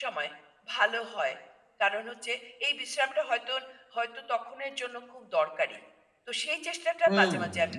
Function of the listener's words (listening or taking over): taking over